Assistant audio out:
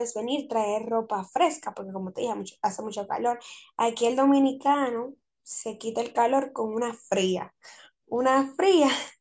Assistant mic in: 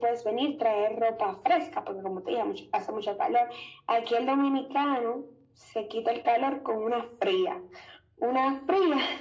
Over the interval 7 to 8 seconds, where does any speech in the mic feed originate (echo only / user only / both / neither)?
echo only